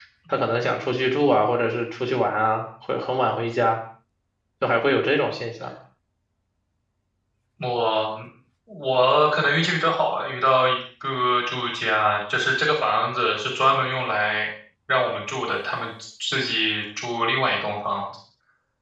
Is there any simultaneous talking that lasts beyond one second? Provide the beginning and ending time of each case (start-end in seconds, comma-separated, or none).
none